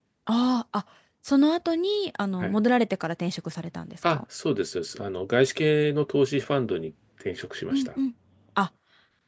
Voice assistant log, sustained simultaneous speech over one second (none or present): none